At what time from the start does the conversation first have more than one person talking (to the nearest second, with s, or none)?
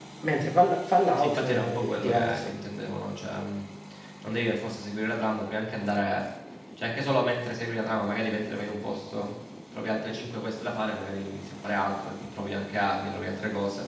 1 s